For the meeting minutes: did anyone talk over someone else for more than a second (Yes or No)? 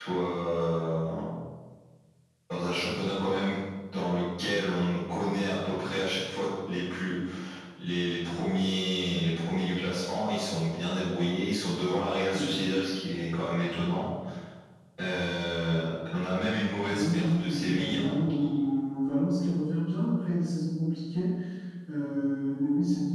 Yes